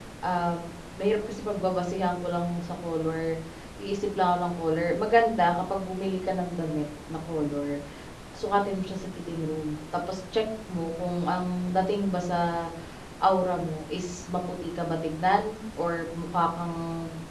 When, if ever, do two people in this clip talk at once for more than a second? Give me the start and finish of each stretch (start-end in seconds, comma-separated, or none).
none